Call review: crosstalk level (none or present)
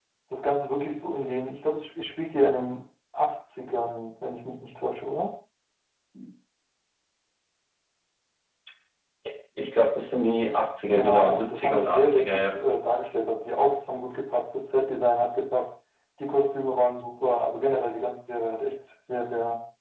present